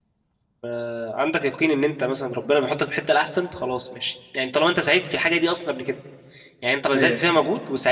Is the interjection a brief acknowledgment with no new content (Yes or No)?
Yes